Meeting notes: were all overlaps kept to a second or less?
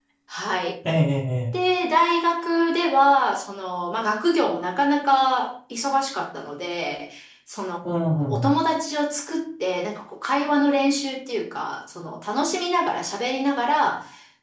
Yes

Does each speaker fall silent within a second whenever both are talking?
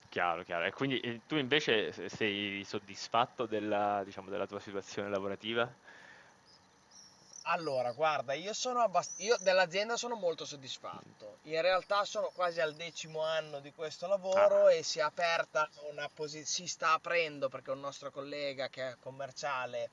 Yes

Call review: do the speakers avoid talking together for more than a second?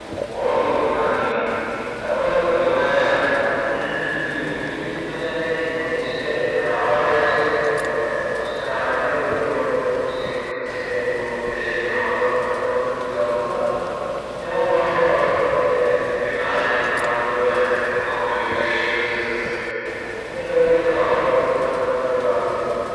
Yes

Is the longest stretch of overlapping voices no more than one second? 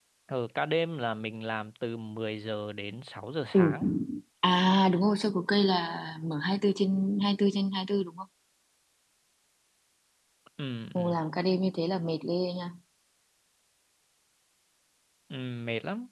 Yes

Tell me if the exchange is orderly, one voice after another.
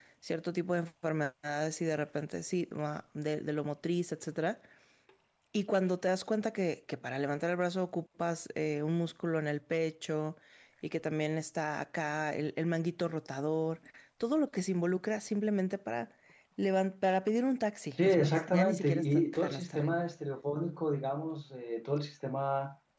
No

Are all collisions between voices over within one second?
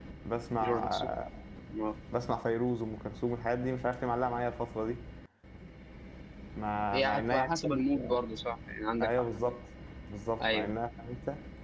No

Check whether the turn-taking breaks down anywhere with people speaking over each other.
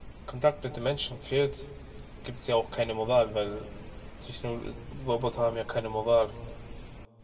No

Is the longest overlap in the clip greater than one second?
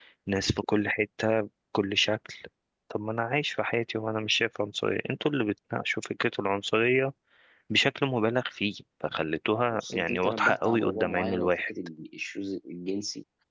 Yes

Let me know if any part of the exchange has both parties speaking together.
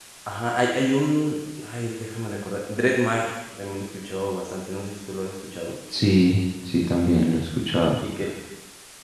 No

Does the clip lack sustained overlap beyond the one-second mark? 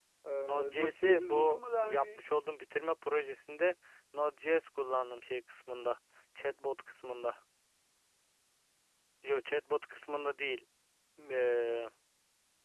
No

